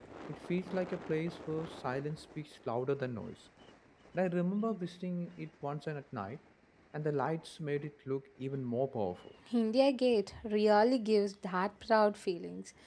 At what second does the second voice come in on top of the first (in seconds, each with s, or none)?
none